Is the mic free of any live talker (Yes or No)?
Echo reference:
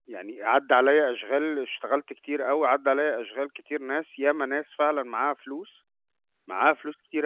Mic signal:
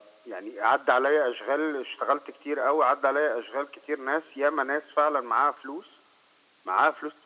Yes